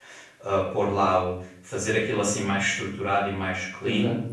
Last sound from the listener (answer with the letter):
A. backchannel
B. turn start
A